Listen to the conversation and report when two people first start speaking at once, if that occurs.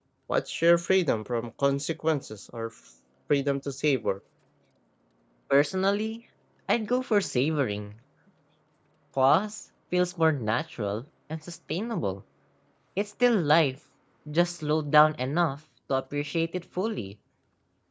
none

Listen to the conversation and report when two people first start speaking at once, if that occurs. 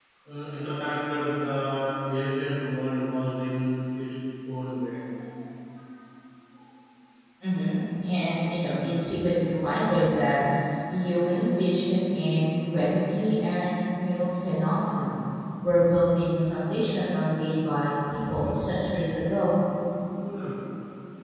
none

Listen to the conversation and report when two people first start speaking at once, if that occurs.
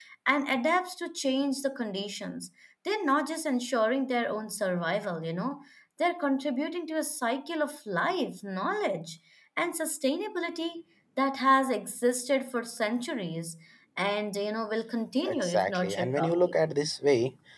15.3 s

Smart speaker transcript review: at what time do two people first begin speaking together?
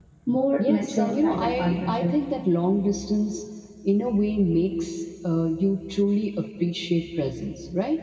0.6 s

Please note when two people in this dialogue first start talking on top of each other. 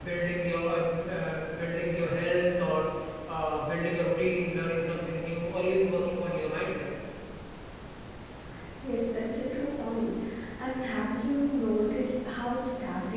none

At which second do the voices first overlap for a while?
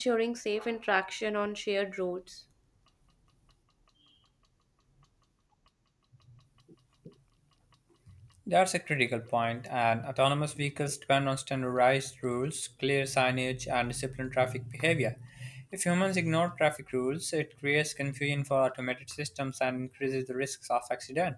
none

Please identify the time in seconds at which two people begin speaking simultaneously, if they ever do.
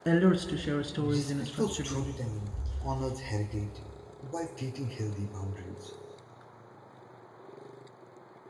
0.9 s

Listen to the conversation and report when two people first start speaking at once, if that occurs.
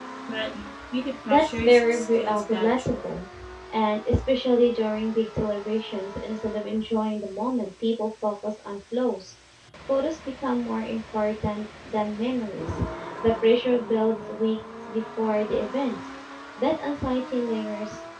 1.3 s

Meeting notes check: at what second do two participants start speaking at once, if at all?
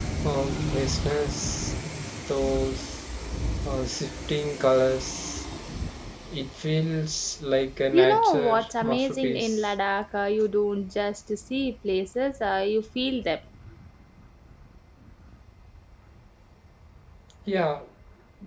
7.9 s

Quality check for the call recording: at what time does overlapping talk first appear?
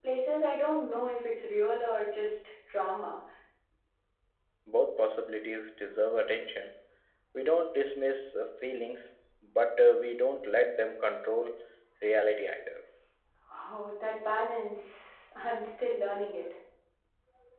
none

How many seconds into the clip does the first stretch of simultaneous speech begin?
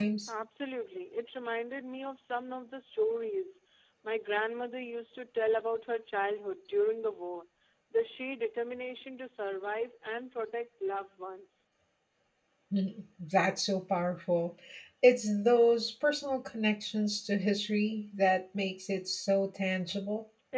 none

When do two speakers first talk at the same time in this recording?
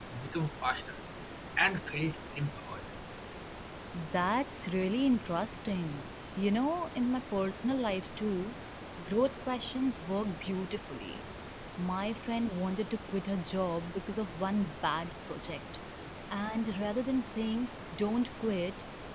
none

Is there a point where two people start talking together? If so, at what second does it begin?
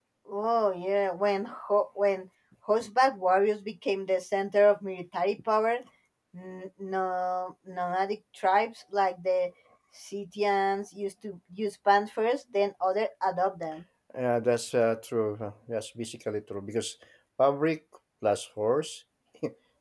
none

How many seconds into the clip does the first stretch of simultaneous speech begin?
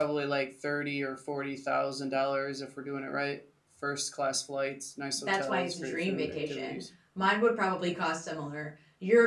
5.3 s

